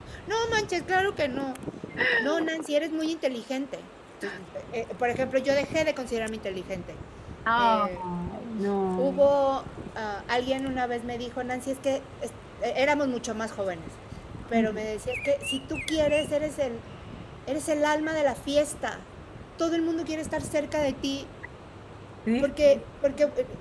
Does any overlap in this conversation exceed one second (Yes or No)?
No